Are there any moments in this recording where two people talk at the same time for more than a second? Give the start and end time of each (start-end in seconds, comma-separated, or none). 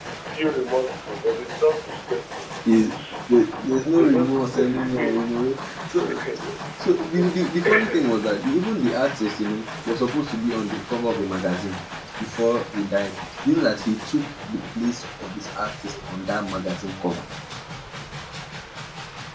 4.0-5.2